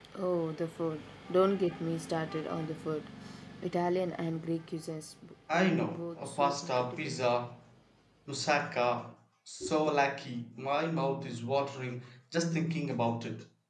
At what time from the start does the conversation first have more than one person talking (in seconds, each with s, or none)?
5.6 s